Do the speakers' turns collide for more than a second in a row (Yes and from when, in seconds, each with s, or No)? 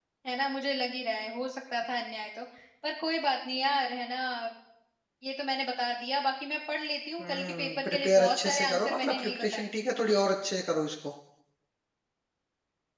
Yes, from 7.2 s